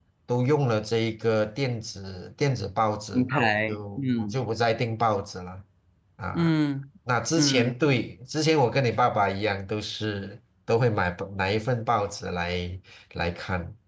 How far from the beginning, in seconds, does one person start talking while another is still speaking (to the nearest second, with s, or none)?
3 s